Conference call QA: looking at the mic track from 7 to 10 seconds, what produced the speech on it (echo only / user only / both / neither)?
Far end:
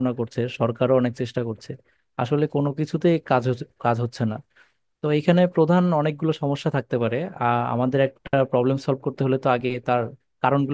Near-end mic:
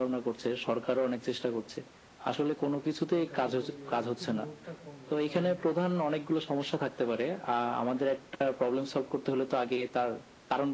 echo only